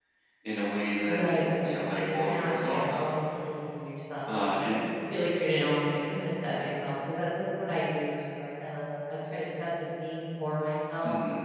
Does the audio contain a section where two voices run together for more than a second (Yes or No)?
Yes